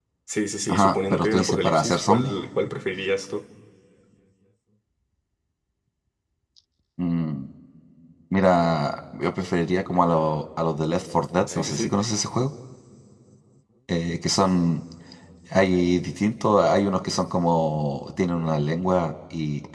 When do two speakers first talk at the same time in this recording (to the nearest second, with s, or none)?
1 s